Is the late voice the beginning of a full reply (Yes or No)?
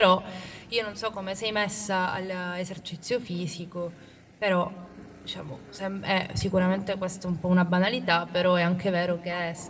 No